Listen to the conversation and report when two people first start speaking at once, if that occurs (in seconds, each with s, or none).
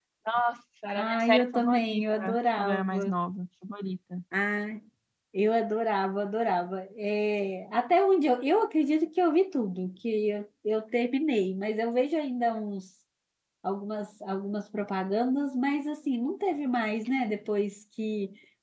1.0 s